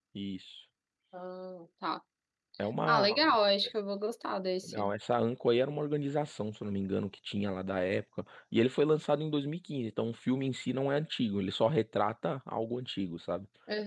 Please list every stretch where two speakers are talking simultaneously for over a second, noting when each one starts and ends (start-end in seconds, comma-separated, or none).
none